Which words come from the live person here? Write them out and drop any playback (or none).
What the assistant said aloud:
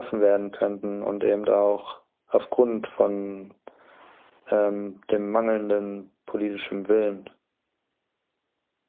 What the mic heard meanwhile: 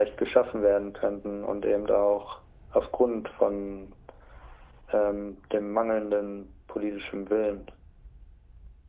none